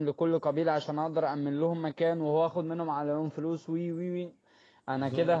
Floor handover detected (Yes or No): No